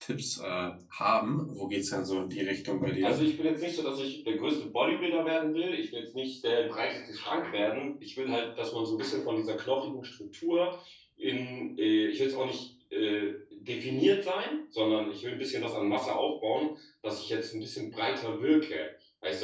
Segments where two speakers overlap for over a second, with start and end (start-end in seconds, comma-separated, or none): none